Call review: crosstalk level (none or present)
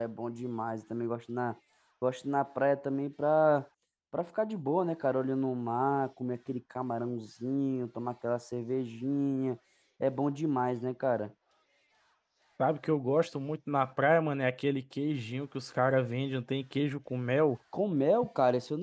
none